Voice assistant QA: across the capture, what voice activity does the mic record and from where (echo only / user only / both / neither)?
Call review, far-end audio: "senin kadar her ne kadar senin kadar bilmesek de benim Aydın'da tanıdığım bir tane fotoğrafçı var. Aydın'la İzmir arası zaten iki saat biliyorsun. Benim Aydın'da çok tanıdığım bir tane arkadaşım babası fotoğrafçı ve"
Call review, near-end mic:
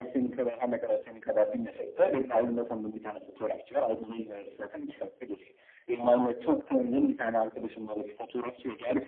echo only